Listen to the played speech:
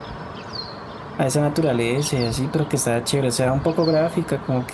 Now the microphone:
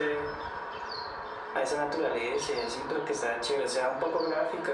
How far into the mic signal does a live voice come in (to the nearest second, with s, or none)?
none